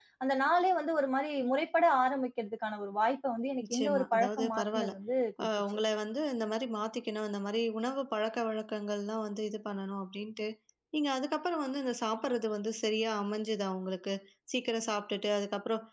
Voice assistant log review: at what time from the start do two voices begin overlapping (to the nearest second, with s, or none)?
4 s